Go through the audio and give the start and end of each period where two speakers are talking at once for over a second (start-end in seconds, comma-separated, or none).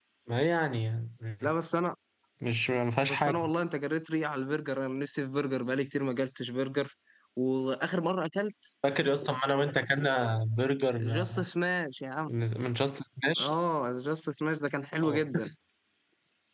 none